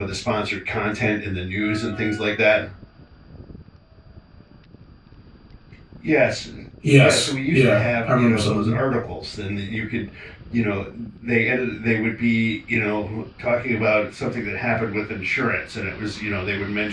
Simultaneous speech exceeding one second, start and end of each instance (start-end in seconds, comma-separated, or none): 7.0-8.8